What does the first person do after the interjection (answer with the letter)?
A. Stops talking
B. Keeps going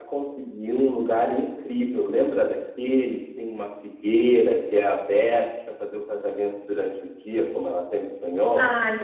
A